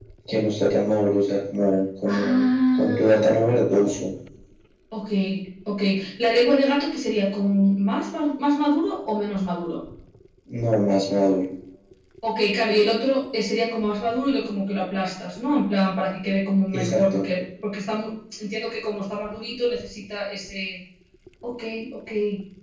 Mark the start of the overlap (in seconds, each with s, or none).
2.0 s